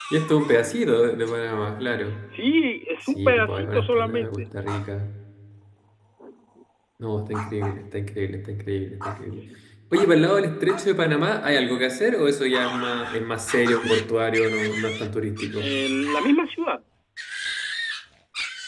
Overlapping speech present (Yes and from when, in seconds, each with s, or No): Yes, from 3.2 s